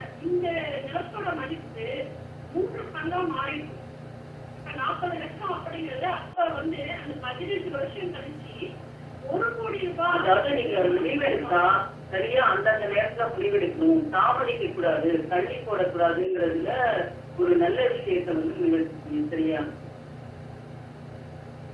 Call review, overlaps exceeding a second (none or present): present